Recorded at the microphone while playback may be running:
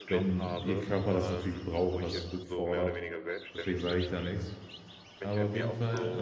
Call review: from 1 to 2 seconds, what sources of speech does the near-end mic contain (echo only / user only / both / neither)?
both